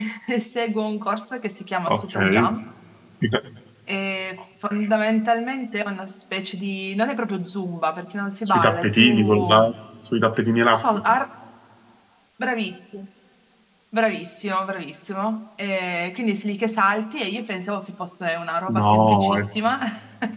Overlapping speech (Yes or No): Yes